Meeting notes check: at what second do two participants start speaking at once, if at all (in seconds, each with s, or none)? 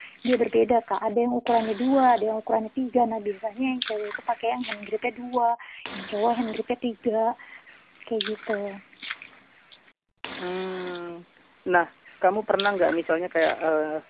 none